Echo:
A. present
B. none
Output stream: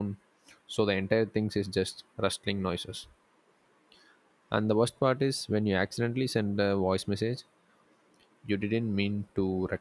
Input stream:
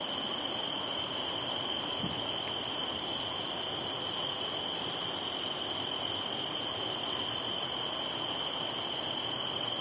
B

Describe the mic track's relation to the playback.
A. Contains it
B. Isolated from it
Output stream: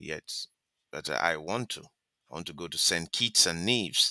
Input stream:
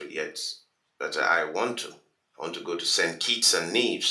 A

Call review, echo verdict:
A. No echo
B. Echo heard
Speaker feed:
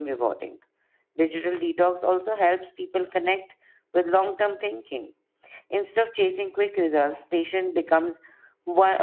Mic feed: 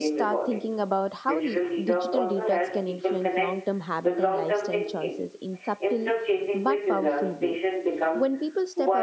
B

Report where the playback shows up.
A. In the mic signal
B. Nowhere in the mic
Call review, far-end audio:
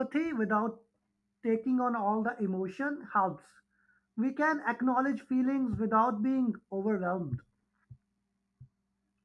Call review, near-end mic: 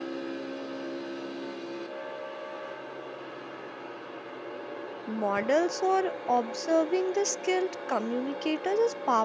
B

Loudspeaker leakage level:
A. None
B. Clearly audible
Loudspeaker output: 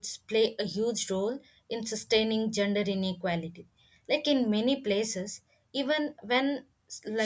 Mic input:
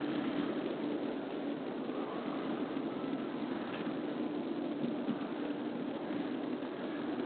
A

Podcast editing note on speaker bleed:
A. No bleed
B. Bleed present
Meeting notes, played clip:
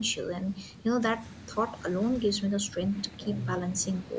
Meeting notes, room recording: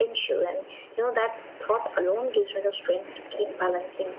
B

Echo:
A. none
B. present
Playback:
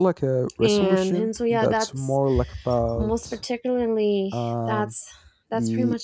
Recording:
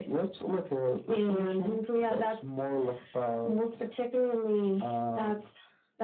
B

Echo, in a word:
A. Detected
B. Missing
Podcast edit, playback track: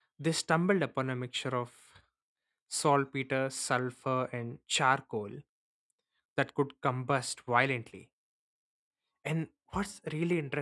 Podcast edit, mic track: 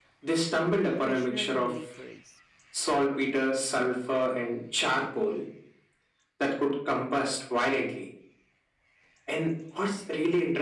A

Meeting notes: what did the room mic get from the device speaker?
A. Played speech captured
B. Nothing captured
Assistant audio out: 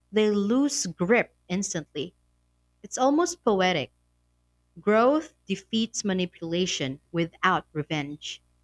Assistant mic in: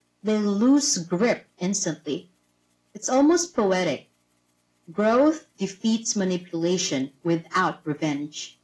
A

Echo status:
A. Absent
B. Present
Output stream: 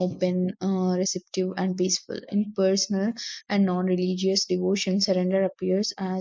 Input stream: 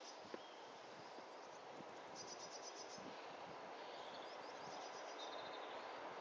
A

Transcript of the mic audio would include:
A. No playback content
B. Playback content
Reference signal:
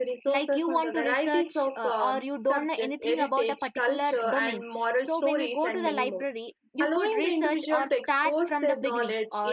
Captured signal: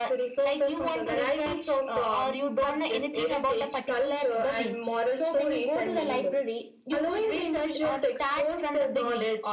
B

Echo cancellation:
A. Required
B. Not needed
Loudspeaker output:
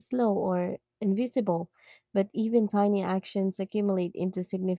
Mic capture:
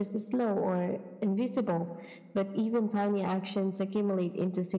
A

